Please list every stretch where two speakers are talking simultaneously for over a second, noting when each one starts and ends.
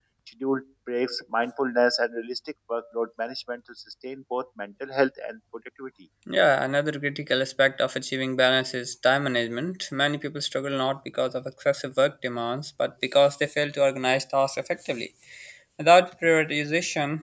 none

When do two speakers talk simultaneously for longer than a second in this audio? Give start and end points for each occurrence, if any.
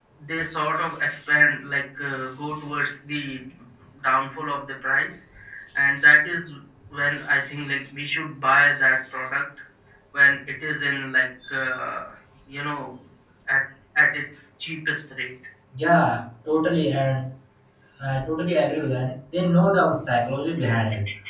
none

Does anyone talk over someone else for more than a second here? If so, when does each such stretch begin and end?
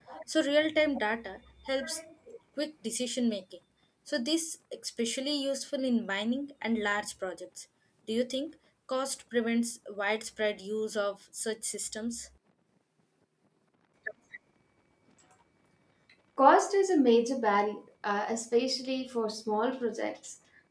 none

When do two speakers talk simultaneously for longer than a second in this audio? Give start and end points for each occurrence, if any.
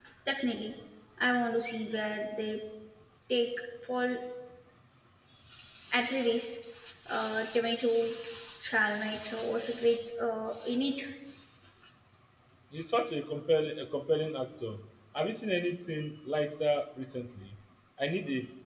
none

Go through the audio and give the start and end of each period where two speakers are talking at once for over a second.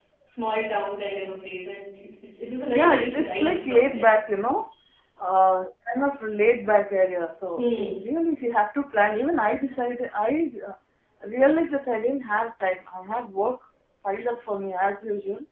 2.7-4.1

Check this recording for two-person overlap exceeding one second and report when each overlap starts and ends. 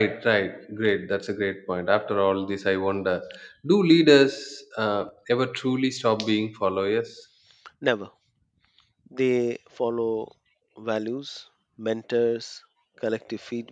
none

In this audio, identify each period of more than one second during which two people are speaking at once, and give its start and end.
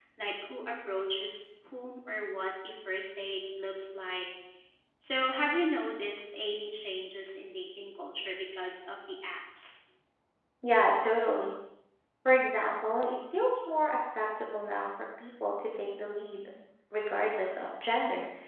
none

